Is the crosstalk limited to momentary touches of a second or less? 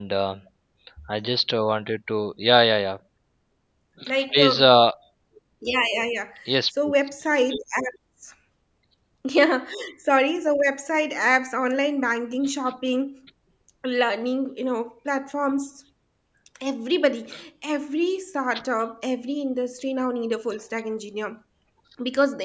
Yes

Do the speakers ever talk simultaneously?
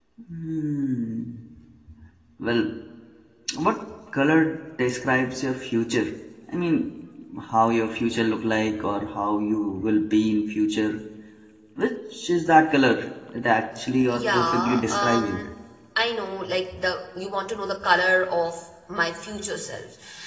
Yes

